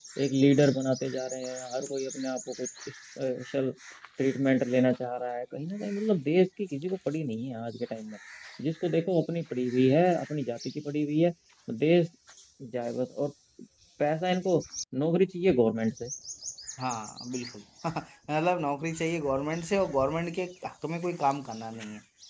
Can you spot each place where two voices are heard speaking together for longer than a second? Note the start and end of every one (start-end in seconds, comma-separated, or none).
none